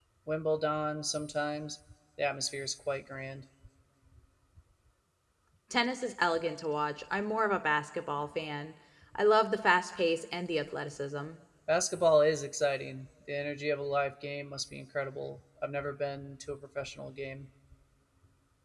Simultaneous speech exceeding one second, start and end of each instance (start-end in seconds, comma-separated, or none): none